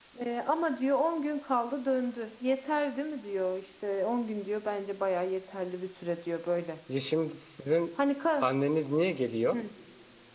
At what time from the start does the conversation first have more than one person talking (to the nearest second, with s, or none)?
none